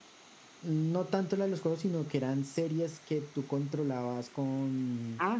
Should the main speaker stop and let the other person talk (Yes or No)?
Yes